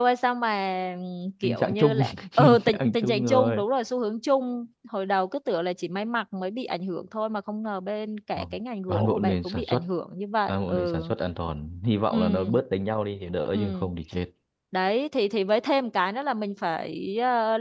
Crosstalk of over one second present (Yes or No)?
Yes